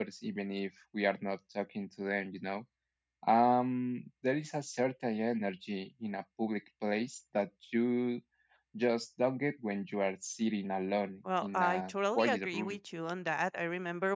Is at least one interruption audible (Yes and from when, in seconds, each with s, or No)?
Yes, from 11.2 s